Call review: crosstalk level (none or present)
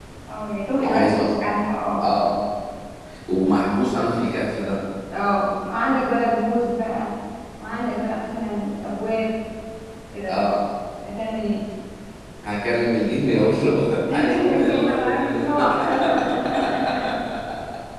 present